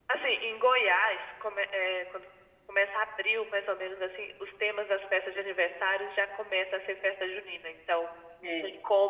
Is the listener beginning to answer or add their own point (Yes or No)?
No